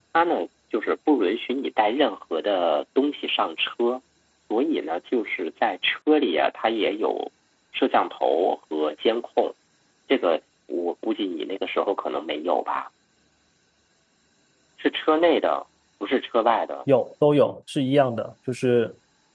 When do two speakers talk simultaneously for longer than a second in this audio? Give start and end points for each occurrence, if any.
none

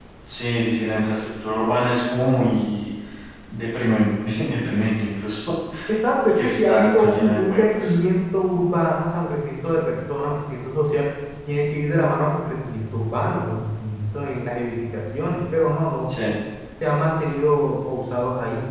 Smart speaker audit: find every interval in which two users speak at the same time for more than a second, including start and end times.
6.3-8.0

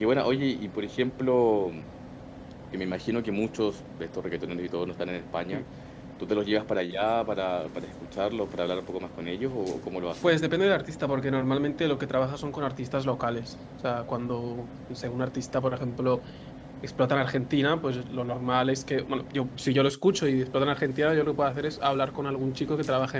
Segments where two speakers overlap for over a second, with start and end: none

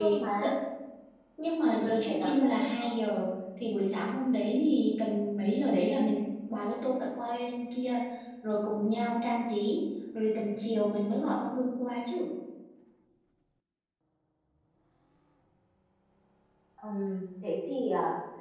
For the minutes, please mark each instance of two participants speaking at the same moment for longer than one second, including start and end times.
1.6-2.9

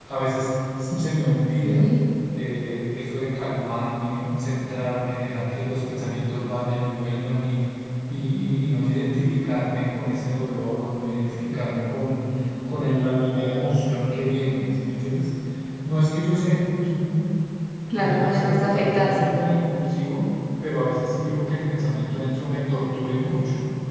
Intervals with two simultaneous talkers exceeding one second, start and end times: 17.9-19.1

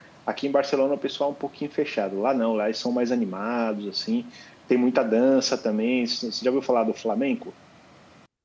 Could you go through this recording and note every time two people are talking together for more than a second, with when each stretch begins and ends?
none

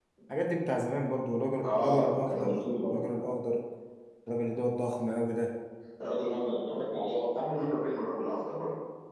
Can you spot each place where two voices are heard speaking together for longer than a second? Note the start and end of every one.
1.7-3.0

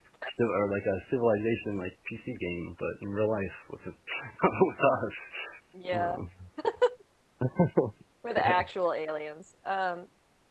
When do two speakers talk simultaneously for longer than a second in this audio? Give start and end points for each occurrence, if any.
none

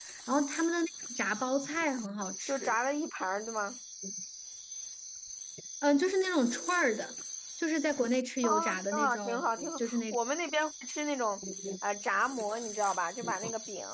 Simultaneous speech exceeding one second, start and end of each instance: 8.4-10.0

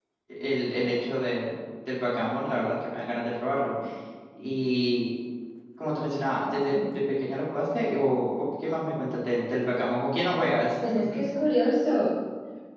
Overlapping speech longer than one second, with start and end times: none

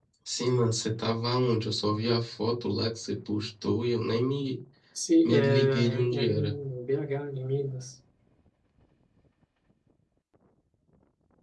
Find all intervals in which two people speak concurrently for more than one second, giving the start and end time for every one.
5.2-6.5

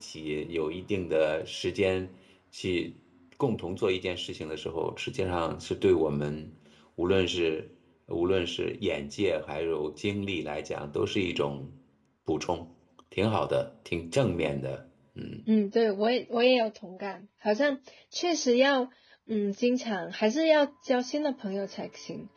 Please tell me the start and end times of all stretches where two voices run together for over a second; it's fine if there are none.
none

